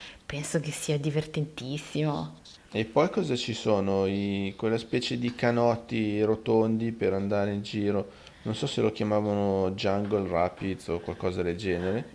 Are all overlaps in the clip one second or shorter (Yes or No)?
Yes